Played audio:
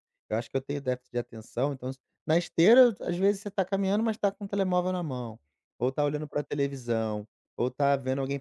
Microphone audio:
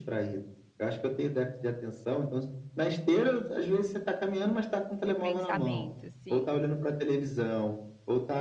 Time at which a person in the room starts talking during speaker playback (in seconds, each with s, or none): 5.0 s